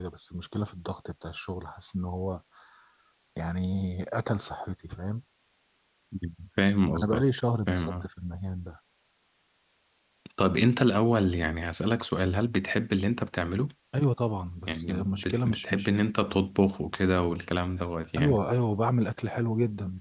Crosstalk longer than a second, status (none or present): present